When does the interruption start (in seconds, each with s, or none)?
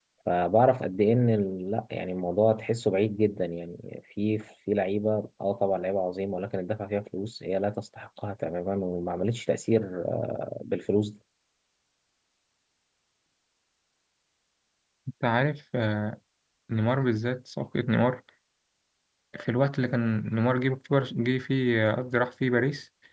none